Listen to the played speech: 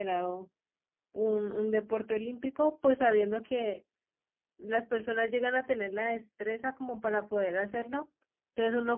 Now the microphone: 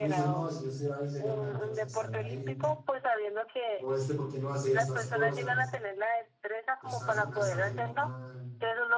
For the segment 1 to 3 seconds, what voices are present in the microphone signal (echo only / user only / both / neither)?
both